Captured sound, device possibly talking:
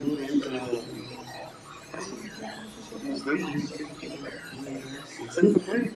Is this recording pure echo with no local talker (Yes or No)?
No